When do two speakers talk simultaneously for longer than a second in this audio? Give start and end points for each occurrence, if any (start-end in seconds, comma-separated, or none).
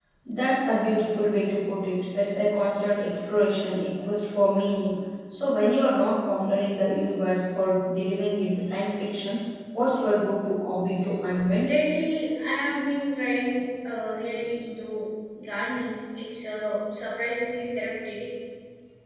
none